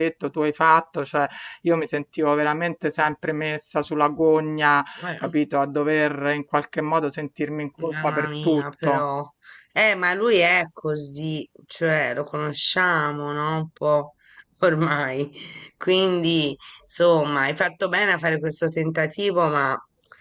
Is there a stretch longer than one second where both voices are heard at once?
Yes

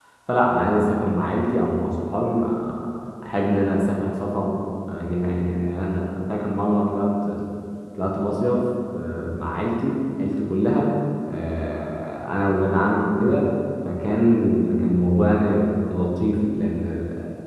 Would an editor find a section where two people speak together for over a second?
No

